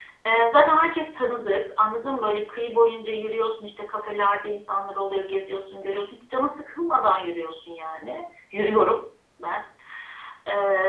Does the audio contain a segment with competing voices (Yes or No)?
No